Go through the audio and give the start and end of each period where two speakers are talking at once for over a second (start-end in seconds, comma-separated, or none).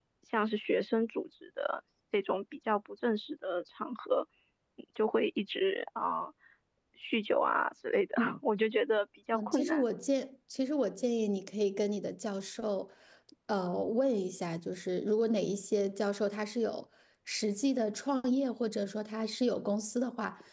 none